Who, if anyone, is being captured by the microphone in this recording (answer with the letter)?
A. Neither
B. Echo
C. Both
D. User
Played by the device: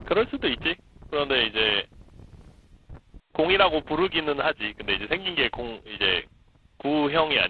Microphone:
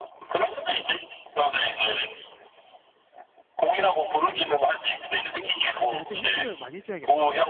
C